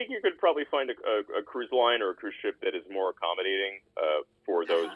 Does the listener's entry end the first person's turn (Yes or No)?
Yes